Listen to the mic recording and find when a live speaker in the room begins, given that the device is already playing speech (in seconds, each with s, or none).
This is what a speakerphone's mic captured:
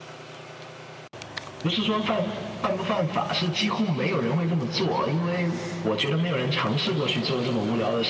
none